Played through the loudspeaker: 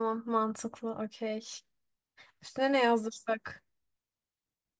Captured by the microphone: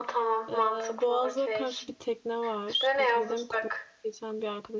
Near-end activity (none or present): present